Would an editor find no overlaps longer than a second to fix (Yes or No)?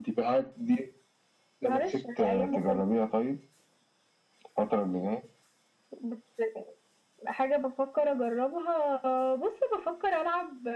No